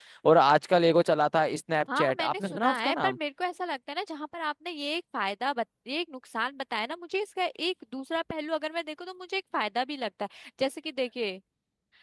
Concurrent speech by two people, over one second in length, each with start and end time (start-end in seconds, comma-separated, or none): 2.0-3.2